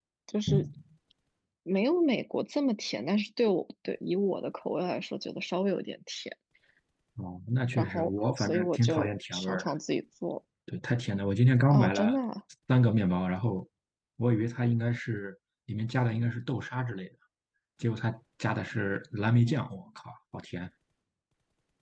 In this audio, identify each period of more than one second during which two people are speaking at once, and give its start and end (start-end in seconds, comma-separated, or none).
7.7-9.7